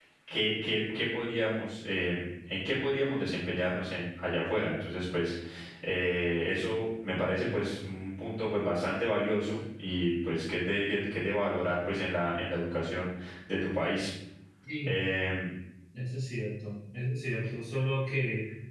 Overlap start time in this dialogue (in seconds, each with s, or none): none